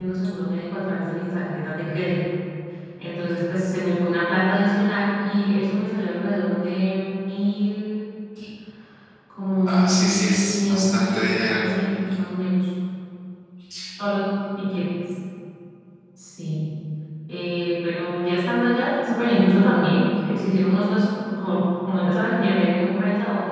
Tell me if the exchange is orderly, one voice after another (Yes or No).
No